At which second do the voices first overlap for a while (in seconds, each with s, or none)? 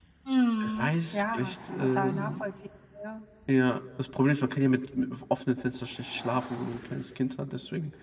0.6 s